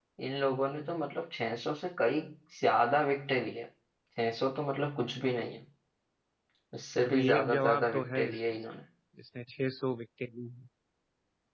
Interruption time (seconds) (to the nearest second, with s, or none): 7 s